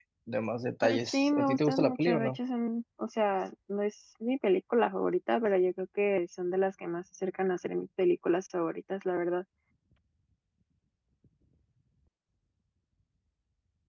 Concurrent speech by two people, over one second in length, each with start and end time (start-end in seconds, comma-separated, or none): 0.8-2.4